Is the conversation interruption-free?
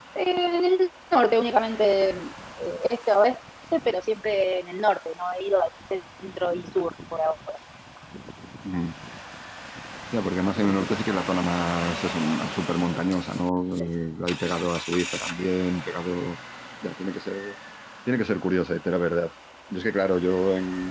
Yes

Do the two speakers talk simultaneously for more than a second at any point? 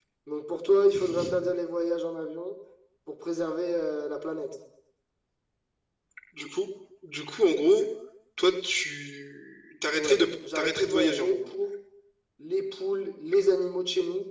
Yes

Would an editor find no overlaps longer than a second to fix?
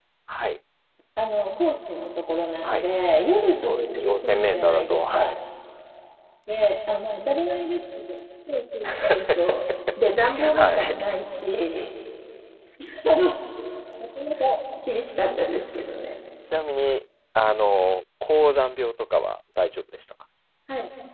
No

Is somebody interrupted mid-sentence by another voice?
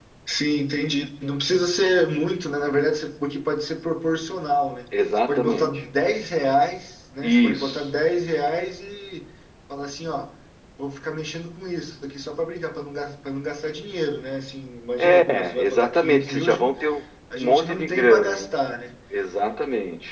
Yes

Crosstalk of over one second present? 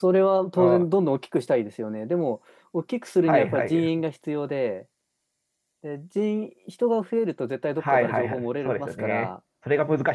Yes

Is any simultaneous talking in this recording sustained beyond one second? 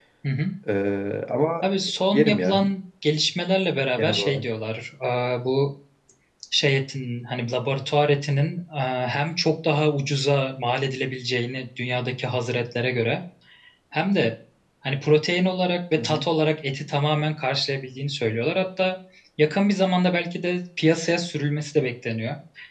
No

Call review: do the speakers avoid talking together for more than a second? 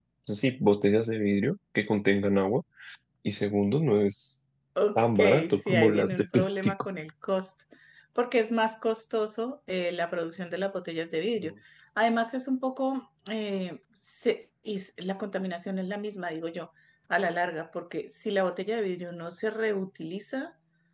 No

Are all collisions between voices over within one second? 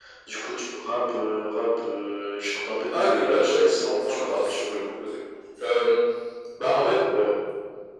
No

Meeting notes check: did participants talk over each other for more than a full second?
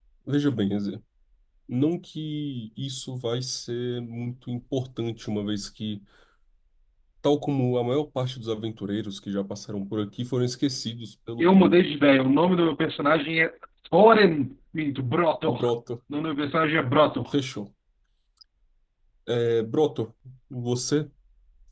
No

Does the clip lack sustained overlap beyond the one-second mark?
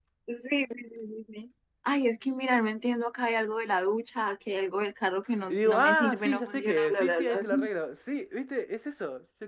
No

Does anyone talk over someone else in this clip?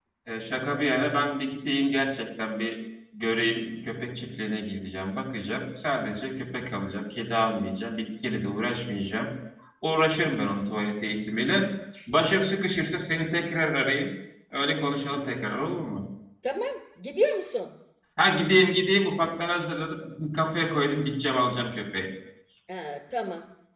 No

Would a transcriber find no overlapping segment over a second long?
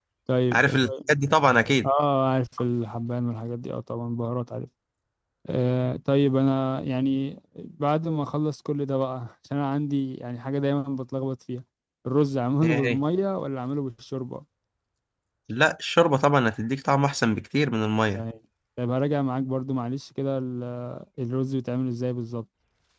Yes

